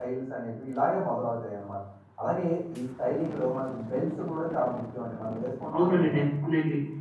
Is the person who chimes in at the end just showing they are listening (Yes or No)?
No